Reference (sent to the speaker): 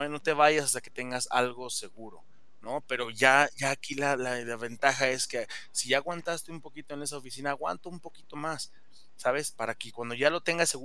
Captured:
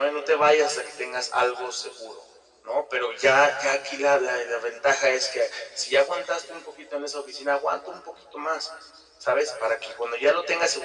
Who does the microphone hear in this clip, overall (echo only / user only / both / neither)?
echo only